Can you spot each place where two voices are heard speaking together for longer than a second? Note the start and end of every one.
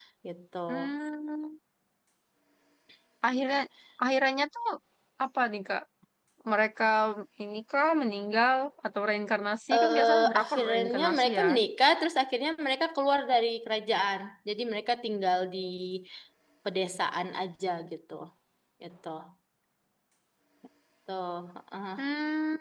9.8-11.5

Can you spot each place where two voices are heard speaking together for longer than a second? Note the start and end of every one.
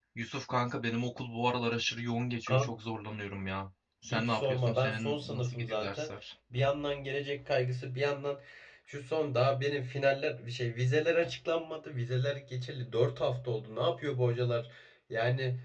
4.0-6.1

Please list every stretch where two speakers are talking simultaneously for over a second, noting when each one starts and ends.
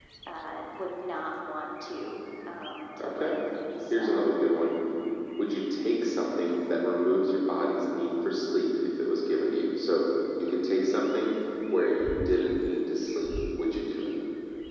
none

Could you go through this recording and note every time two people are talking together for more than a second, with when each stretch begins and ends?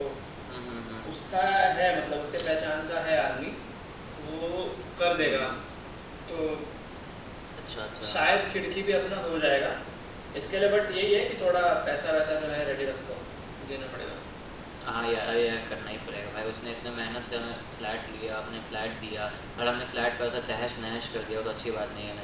none

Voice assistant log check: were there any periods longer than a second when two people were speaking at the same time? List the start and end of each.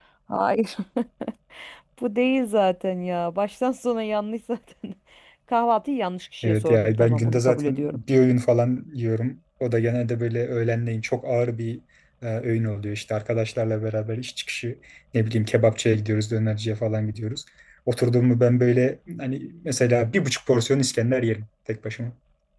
6.4-8.0

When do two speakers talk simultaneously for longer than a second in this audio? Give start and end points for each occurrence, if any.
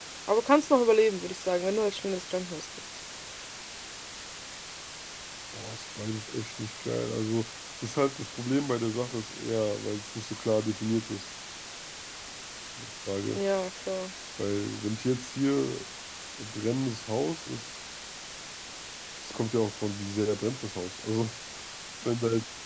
none

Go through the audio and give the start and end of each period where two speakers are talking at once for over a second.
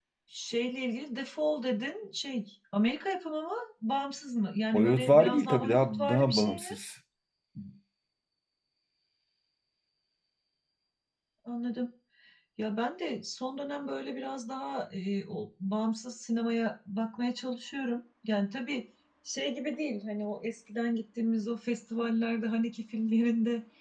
4.7-6.7

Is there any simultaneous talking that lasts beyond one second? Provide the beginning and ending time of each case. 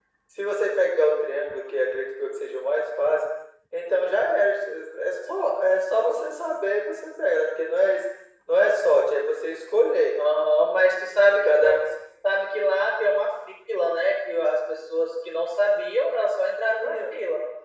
none

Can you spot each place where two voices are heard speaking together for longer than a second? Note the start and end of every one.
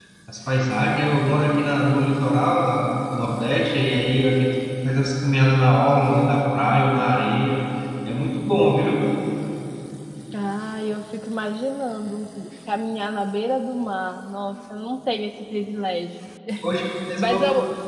none

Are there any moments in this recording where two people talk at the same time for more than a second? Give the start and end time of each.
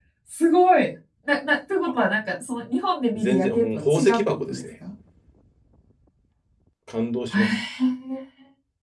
3.1-4.6

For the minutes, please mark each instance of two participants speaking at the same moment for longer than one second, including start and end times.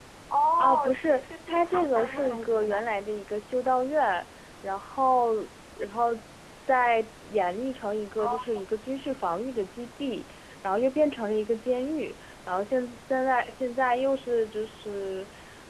0.6-2.8

